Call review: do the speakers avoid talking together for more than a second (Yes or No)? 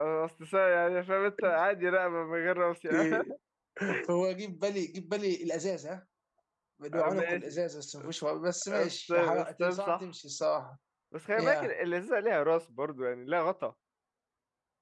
No